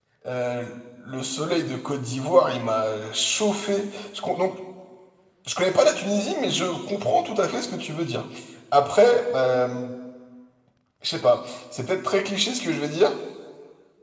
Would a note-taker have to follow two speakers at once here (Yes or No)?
No